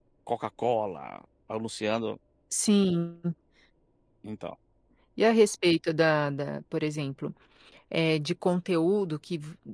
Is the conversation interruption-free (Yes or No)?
Yes